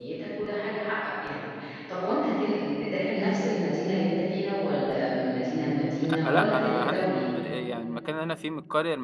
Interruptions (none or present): present